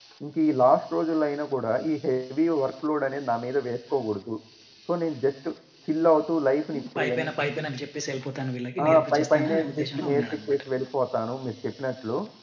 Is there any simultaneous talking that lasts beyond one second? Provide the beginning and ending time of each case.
8.8-10.6

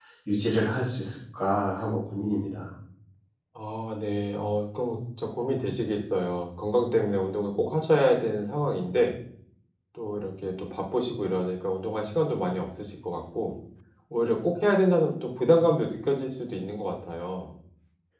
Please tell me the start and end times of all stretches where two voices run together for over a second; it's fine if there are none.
none

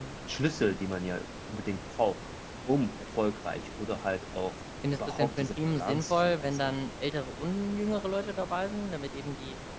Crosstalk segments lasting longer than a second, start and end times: 4.9-6.8

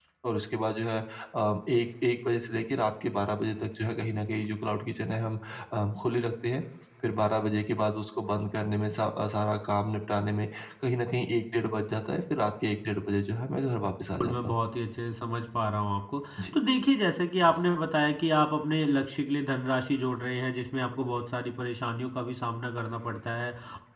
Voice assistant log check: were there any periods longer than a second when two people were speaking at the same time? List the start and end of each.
none

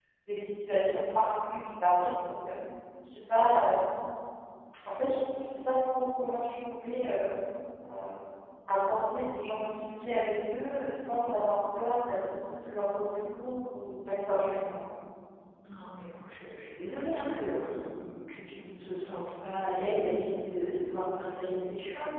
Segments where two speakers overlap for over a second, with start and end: none

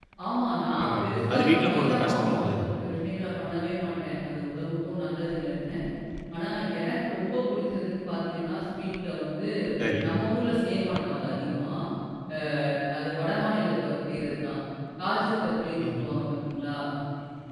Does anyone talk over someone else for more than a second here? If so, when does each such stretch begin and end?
1.3-2.6

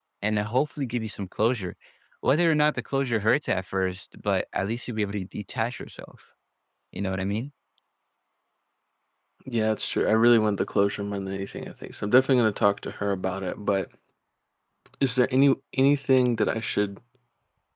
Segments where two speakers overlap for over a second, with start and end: none

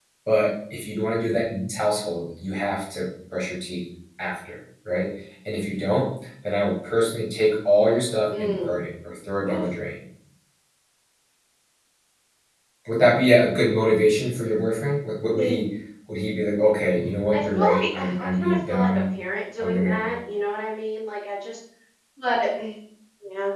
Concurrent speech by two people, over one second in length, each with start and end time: 17.3-19.0

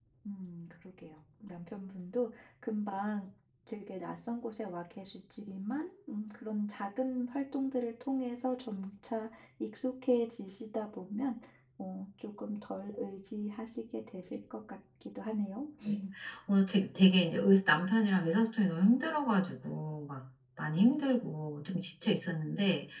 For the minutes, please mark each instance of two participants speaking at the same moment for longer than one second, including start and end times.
none

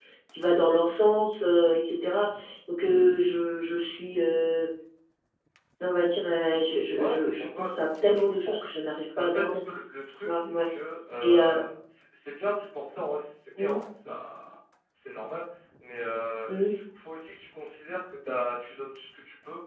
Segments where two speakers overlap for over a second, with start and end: 7.0-8.6

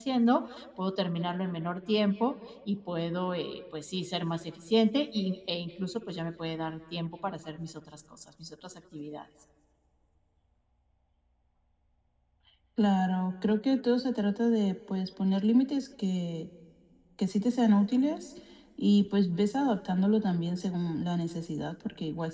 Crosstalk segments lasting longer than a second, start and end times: none

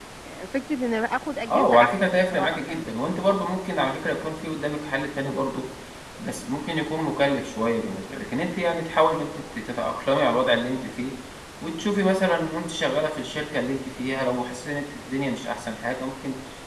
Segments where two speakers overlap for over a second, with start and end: 1.5-2.9

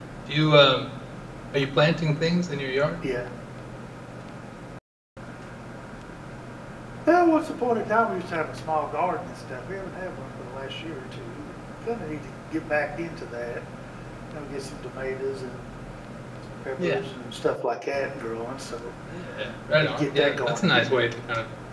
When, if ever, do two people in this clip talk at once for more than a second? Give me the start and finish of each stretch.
19.7-21.0

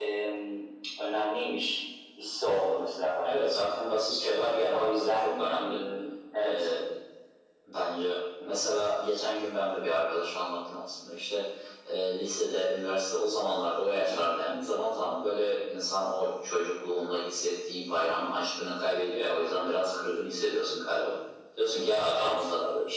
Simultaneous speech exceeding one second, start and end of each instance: 4.4-5.8

